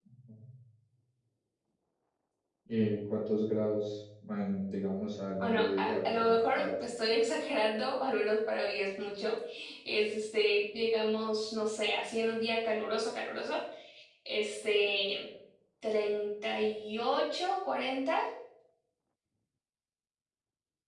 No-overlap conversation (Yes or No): No